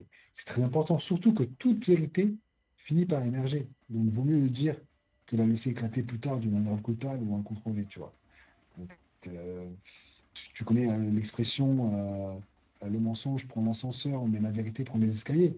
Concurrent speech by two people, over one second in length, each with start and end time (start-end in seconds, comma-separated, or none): none